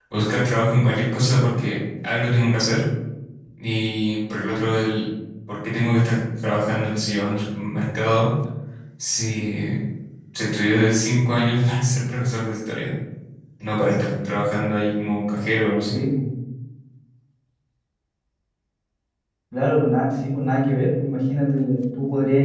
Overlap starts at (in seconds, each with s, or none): none